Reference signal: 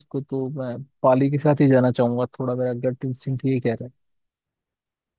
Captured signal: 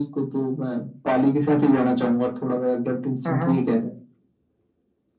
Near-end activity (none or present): present